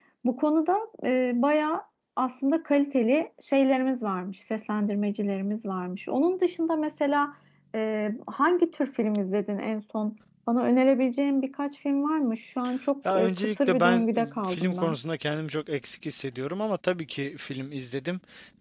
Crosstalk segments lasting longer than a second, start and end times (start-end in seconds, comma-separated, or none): 13.1-15.0